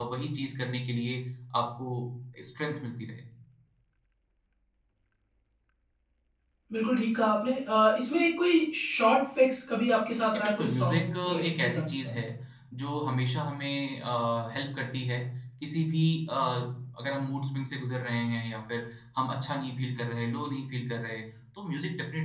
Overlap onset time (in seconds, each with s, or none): 10.3 s